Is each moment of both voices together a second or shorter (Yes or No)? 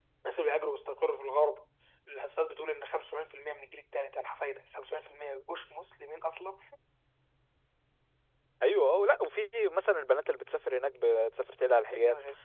Yes